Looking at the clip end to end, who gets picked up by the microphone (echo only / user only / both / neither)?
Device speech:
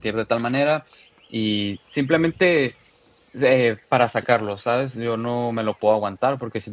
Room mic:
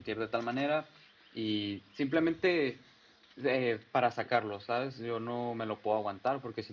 echo only